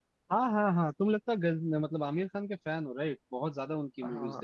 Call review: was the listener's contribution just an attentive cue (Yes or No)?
No